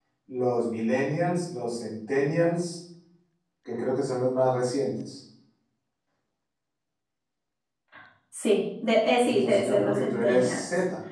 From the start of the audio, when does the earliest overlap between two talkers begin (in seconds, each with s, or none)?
9.2 s